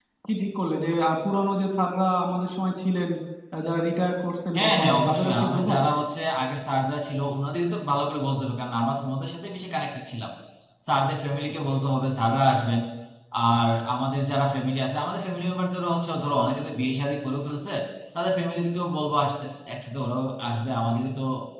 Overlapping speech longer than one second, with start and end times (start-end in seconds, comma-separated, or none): 4.5-5.8